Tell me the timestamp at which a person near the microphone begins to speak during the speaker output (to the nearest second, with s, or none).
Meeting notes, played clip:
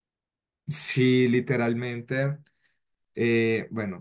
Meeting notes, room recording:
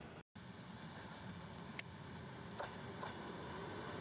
none